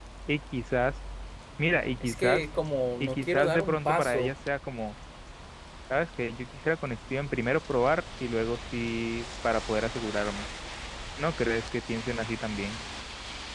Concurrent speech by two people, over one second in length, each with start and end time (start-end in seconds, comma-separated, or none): 3.0-4.3